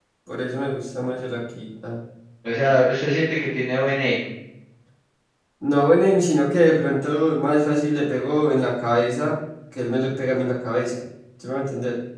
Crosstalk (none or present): none